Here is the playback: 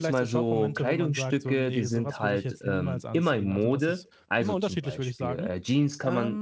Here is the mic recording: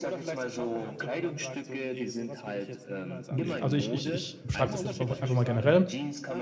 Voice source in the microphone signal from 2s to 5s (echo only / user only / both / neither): both